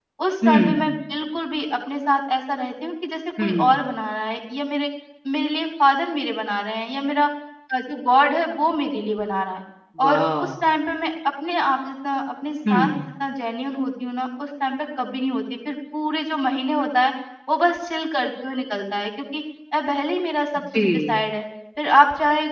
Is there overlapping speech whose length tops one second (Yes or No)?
No